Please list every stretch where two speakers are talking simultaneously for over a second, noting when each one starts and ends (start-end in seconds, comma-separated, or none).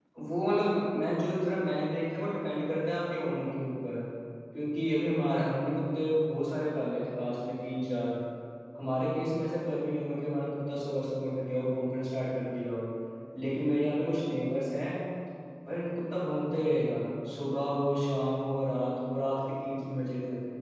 none